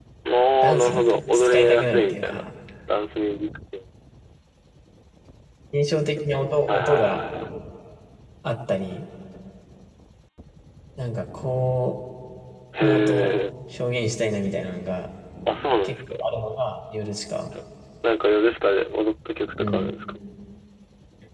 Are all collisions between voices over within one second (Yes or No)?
No